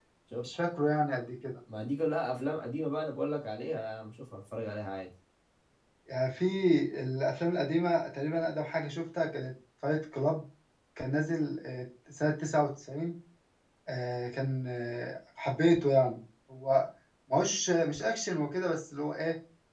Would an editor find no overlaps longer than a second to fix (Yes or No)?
Yes